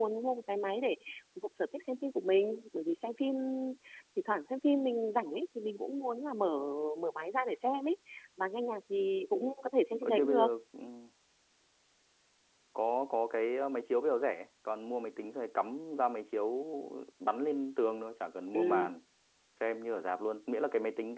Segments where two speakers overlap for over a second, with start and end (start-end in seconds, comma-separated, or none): none